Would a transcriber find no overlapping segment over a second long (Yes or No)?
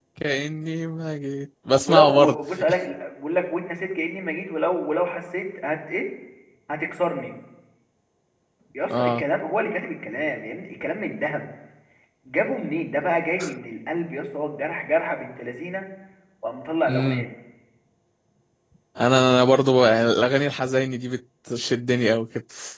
Yes